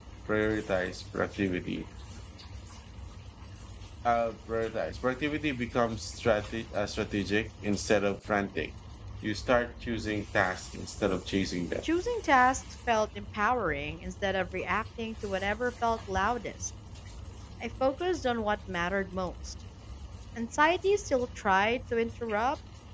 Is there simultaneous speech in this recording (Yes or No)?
No